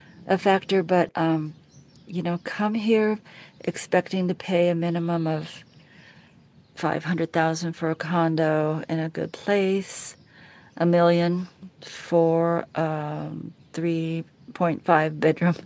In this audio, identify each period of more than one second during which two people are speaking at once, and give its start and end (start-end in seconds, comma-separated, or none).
none